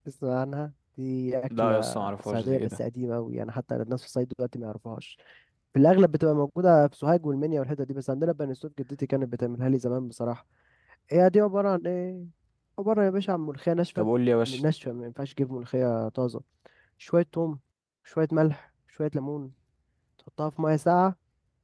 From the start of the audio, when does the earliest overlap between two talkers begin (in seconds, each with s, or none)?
1.5 s